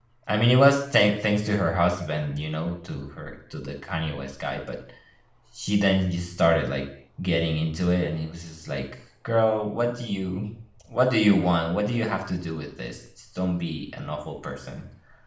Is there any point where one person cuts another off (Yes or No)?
No